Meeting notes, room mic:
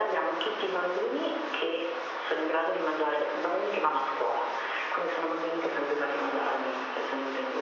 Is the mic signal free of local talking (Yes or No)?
Yes